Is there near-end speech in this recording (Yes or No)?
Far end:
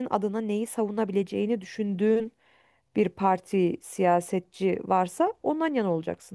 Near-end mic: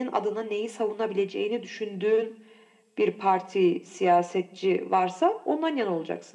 No